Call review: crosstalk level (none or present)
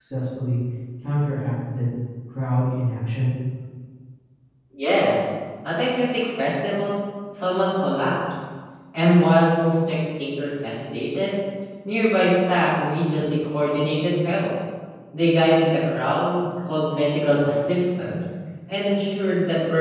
none